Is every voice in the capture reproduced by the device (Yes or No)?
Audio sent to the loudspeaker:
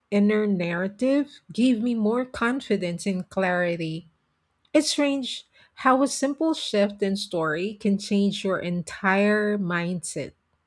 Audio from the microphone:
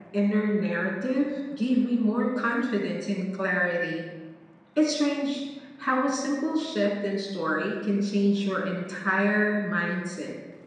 Yes